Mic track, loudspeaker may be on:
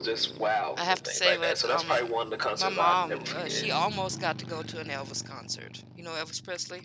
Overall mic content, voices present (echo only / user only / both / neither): both